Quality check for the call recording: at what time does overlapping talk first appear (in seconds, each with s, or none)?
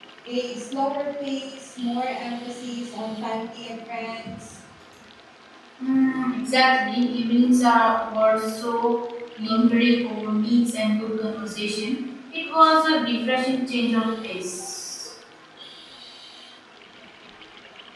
none